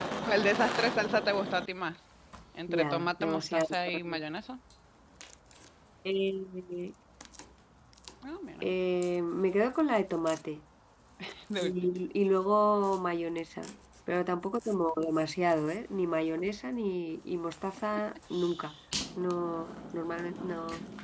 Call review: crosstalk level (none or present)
present